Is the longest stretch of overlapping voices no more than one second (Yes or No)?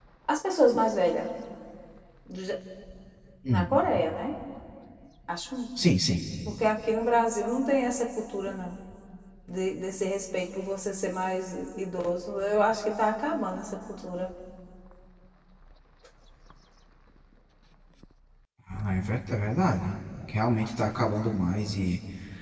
Yes